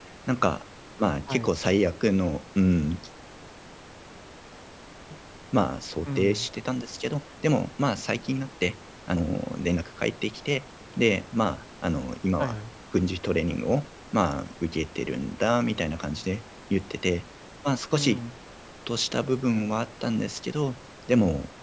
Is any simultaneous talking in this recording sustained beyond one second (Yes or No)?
No